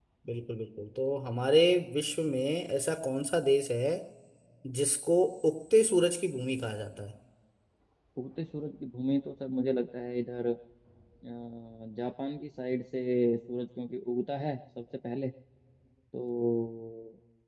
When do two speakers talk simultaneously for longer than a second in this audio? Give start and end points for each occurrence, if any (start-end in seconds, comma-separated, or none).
none